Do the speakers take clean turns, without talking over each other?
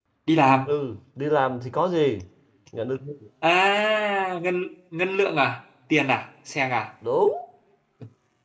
Yes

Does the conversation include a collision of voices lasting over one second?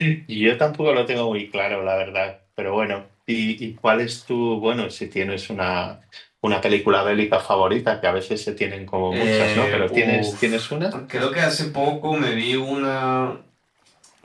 Yes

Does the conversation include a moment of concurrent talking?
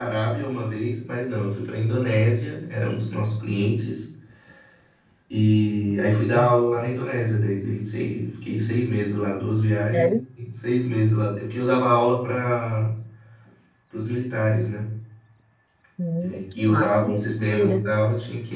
Yes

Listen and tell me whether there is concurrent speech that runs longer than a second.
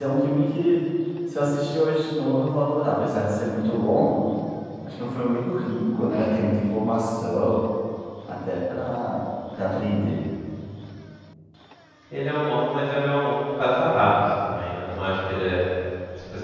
No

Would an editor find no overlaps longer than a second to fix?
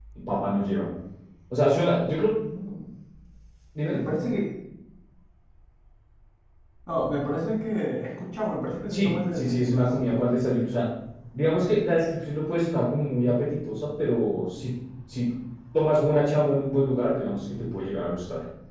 No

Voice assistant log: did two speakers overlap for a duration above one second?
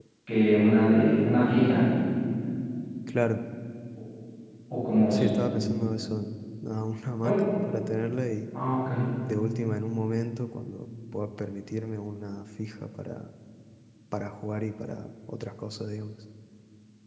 No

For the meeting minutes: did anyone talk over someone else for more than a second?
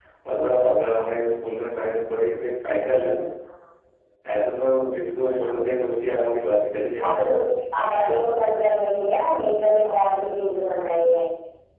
No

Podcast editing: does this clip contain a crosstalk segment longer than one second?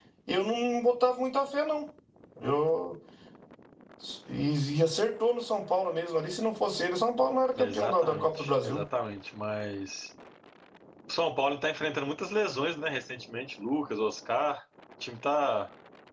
Yes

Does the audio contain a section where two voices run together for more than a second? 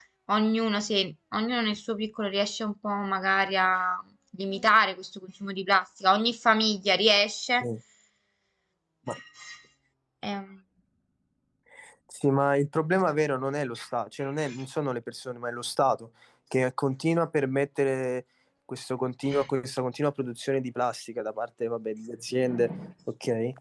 No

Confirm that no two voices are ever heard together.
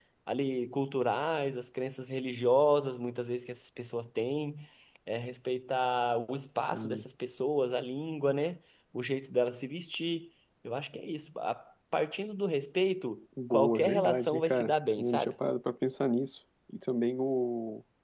No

